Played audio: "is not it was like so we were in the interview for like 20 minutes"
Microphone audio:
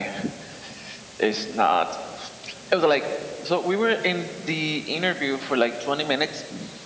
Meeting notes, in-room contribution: none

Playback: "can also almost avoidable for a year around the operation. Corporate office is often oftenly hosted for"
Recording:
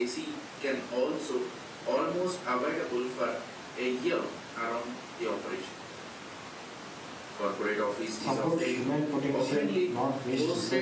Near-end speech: present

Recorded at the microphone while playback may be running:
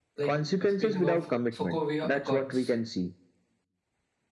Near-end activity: present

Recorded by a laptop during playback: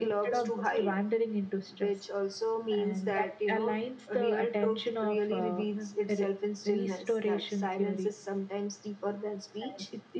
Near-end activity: none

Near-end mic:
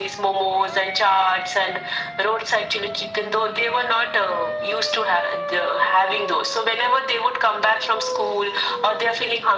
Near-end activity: none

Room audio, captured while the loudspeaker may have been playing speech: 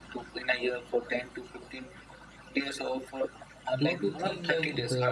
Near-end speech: present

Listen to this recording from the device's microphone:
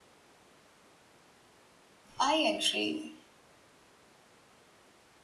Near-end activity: present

